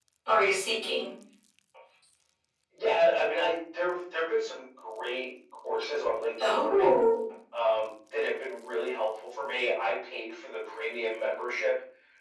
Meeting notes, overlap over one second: none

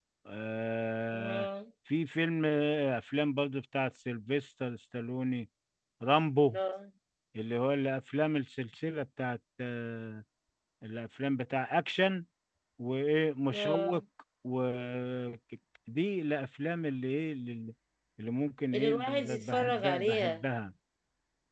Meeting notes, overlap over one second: present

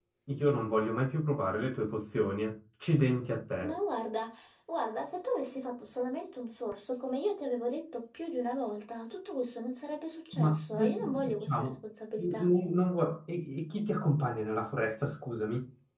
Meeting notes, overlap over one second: present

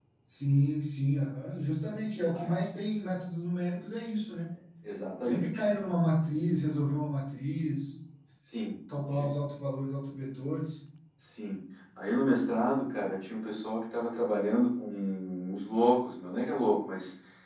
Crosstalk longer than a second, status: none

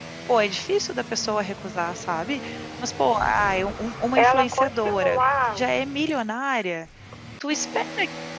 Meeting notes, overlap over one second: present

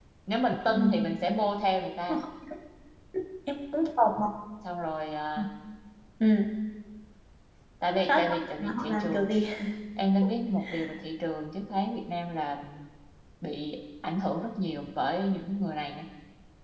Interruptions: present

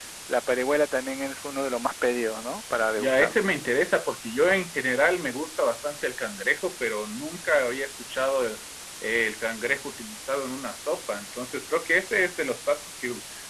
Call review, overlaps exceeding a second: none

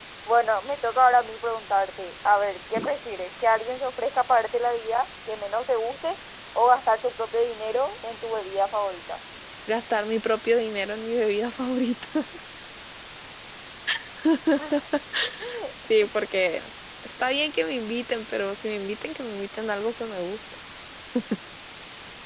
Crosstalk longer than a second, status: none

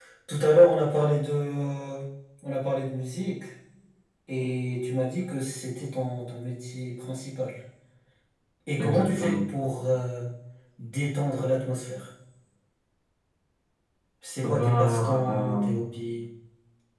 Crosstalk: present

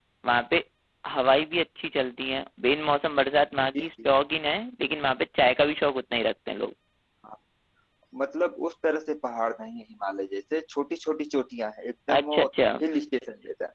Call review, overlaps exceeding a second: none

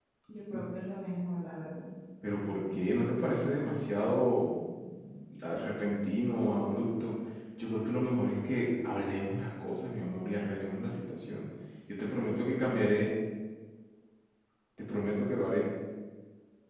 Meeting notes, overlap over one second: none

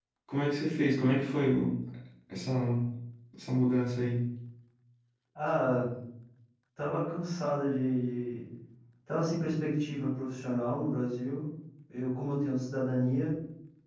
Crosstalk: none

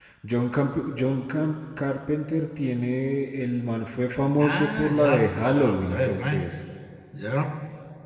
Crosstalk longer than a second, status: present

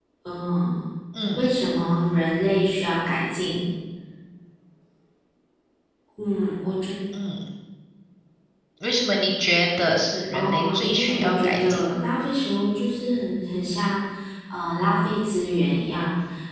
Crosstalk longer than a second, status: present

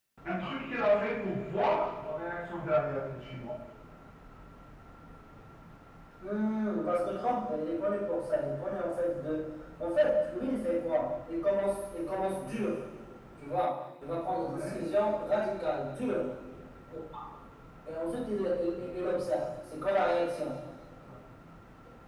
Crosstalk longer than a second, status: none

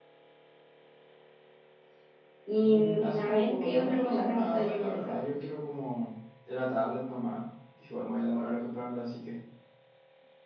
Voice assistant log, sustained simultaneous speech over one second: present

